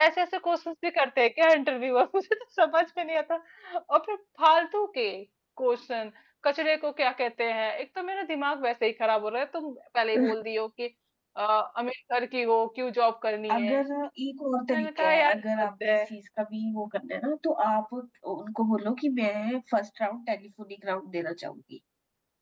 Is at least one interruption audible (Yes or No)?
Yes